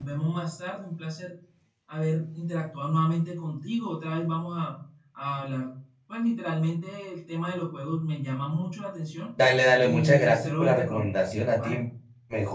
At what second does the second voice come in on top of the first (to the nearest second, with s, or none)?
10 s